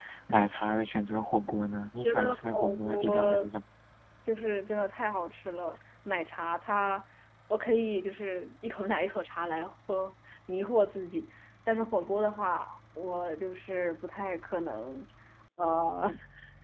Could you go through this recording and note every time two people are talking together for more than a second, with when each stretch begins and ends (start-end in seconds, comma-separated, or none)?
2.0-3.5